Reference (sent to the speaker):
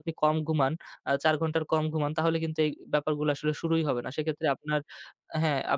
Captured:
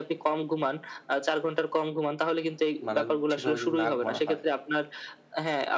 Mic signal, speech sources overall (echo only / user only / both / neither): both